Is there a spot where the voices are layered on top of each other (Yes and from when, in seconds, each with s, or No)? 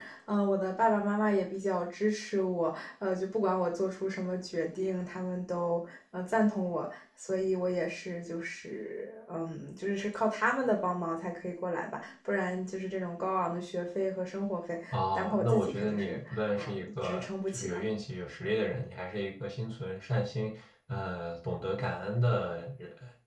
Yes, from 14.9 s